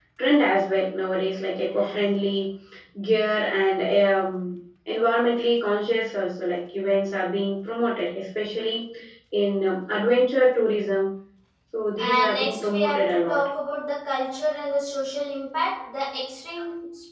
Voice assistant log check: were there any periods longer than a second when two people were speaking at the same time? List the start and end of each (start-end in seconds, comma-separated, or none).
12.0-13.5